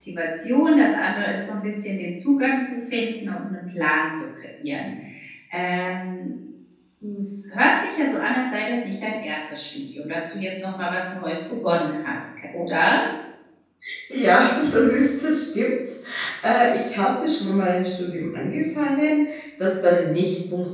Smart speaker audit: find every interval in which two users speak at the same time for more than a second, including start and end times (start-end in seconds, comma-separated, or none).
none